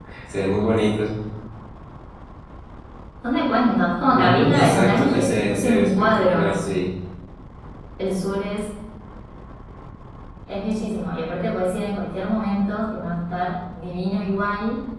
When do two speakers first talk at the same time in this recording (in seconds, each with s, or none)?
4.1 s